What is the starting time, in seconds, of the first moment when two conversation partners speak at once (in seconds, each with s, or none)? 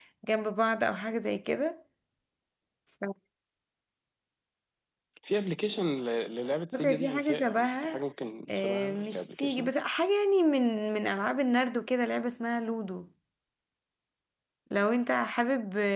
6.8 s